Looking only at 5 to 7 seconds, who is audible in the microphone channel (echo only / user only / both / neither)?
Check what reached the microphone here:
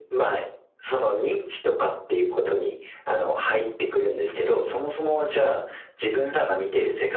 echo only